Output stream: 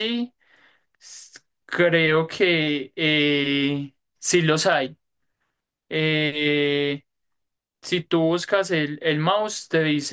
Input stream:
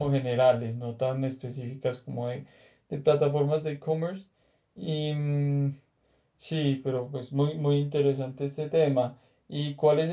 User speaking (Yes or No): Yes